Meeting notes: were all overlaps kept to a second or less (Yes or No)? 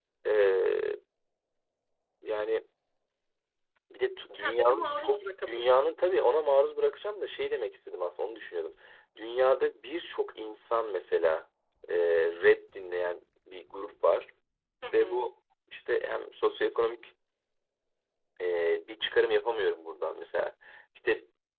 No